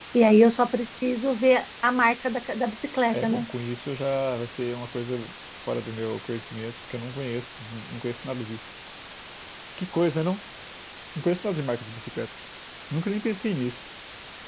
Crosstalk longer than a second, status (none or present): none